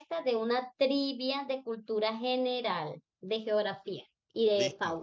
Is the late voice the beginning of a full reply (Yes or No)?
Yes